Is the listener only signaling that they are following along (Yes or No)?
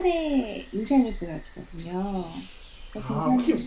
No